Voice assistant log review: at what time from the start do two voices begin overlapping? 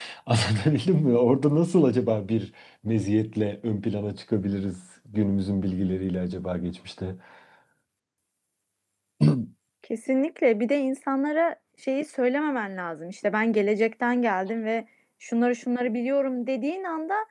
none

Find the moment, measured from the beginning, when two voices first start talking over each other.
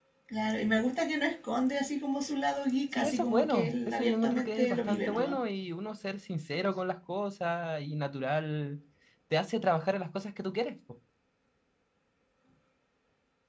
2.9 s

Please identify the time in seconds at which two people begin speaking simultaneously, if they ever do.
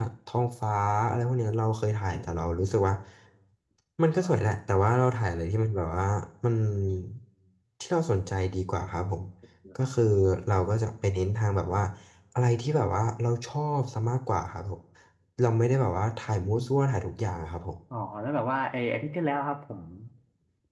none

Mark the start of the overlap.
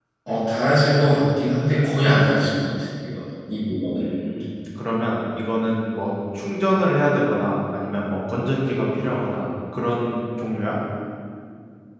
none

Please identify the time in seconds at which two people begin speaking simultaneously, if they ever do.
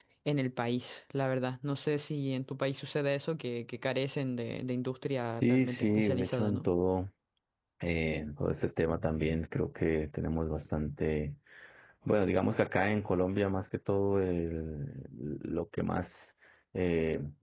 5.4 s

